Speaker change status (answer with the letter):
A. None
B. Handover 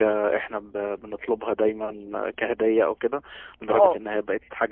A